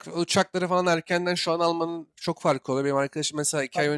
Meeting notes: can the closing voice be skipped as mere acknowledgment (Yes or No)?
Yes